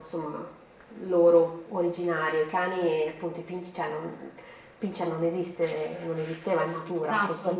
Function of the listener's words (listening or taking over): listening